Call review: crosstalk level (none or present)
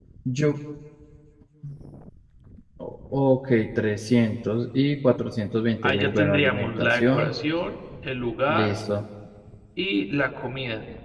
present